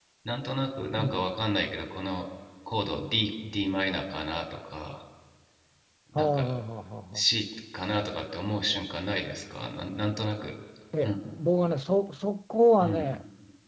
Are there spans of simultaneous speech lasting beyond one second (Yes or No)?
No